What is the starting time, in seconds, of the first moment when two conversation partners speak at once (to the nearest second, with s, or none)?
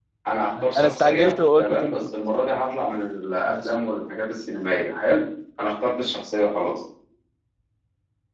1 s